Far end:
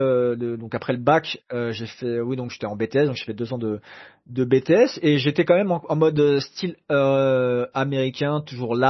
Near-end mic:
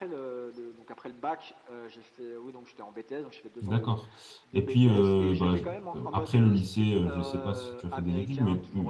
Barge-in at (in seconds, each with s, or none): 3.6 s